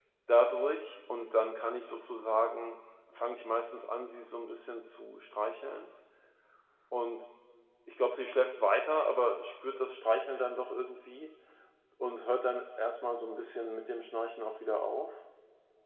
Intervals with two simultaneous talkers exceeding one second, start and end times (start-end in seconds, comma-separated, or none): none